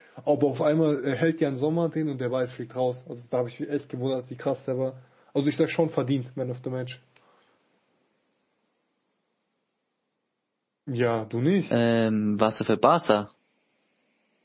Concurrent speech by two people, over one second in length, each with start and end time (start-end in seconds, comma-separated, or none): none